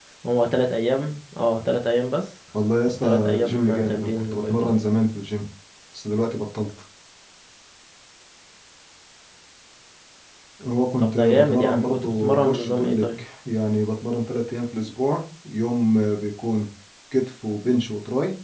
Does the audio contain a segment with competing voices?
Yes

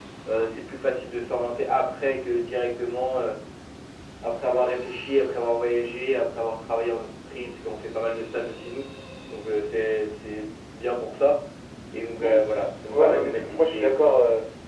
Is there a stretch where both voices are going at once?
Yes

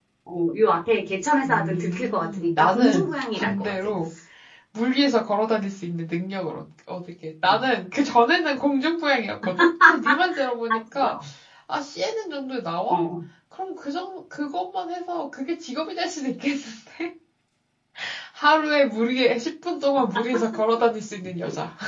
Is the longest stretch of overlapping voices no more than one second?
No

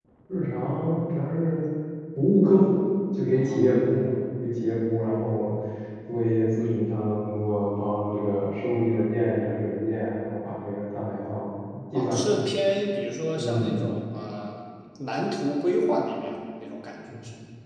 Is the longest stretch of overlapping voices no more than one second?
Yes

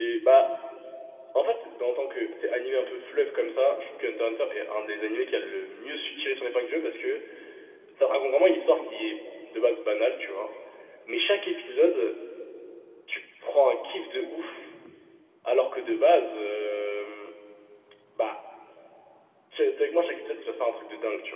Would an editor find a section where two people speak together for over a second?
No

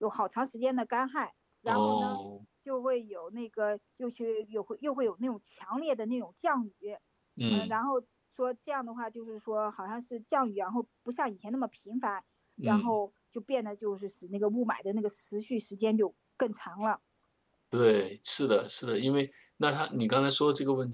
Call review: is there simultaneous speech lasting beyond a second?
No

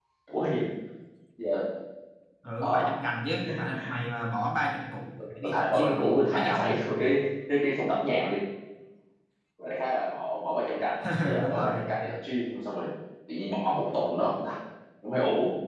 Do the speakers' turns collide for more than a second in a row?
Yes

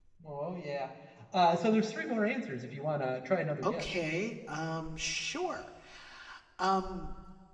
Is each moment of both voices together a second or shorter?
Yes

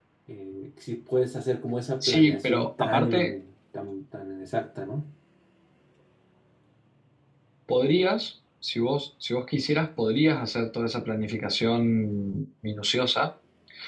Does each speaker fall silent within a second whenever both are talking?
No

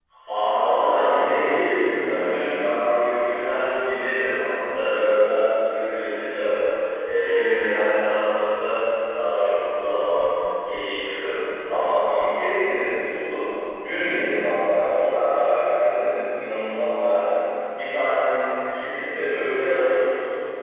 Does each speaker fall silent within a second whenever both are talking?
No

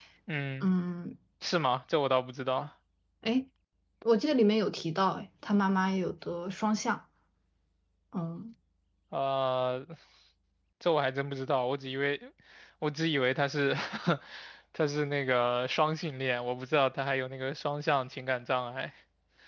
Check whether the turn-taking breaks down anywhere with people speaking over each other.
No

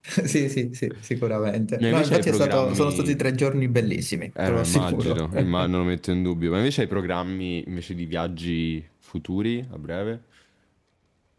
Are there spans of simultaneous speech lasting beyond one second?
Yes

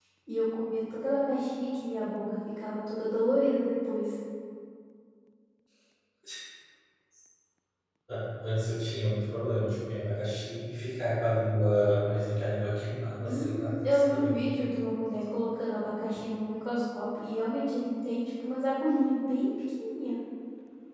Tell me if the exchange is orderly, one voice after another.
No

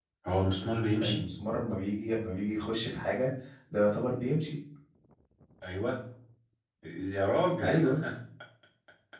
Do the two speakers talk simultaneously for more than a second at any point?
No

